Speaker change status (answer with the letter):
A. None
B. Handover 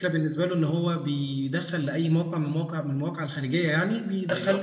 A